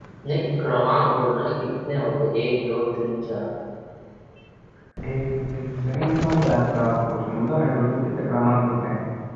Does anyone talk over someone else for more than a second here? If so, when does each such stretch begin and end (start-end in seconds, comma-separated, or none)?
none